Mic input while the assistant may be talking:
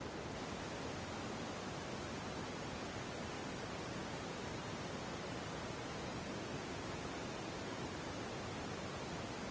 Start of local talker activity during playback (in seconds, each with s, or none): none